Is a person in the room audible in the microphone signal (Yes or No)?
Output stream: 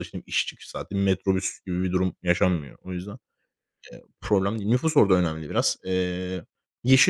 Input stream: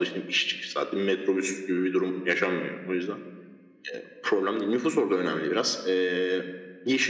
No